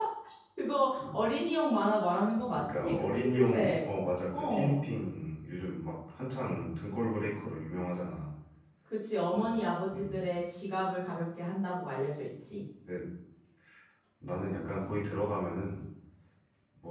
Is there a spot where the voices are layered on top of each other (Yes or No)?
Yes